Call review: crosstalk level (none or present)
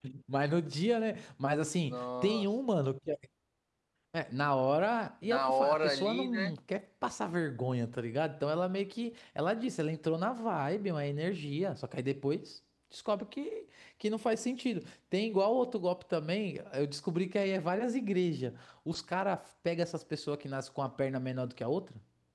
present